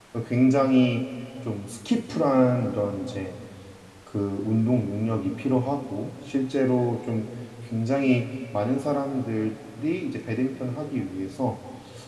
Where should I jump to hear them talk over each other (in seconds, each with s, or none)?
none